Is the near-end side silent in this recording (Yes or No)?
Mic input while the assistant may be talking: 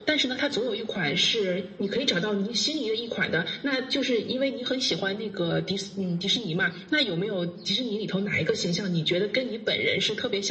Yes